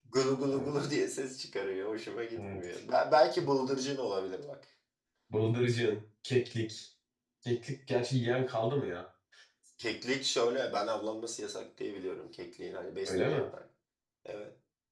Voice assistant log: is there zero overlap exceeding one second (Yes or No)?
Yes